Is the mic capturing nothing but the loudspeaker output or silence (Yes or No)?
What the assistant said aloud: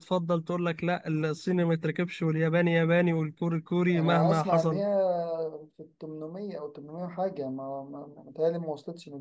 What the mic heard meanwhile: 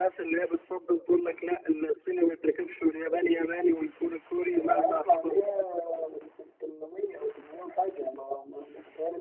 Yes